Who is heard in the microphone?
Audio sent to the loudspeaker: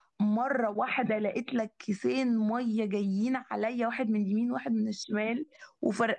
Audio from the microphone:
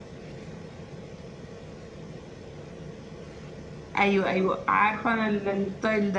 user only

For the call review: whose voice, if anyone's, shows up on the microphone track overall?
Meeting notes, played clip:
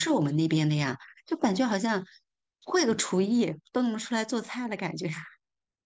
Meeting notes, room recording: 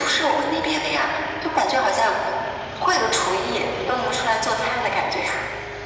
echo only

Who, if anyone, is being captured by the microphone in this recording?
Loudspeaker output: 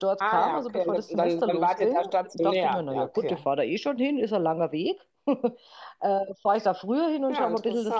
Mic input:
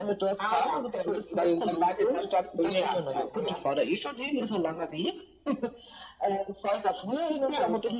both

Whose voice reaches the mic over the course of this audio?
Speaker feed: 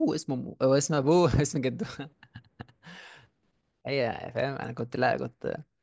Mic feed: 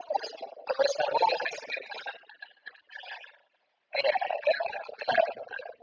echo only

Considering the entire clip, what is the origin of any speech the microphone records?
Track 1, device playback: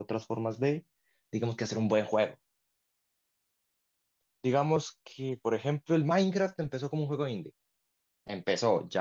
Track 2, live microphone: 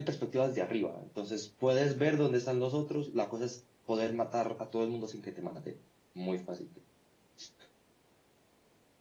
user only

